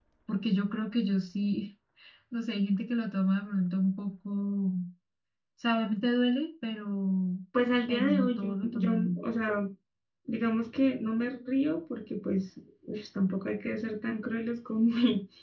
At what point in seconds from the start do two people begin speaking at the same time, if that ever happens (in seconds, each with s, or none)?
7.9 s